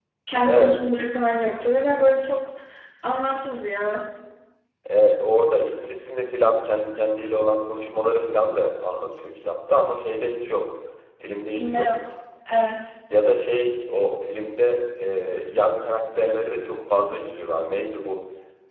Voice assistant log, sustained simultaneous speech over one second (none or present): none